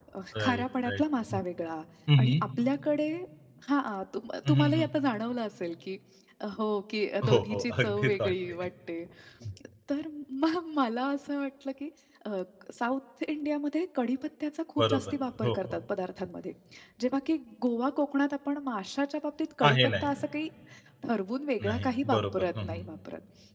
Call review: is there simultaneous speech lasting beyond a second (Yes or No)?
Yes